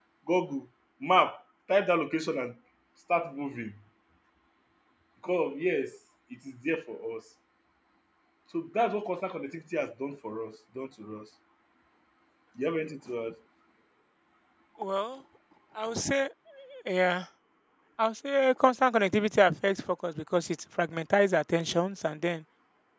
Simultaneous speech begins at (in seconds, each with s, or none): none